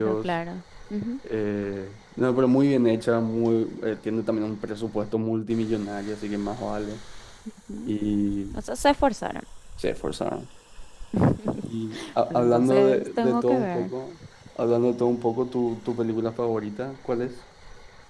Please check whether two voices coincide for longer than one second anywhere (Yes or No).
Yes